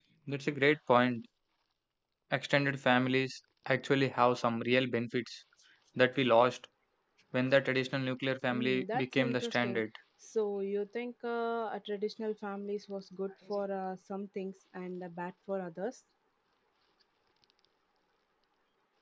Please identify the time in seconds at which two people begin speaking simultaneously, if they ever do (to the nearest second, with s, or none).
9 s